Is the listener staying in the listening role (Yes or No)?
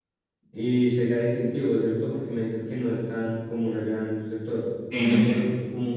Yes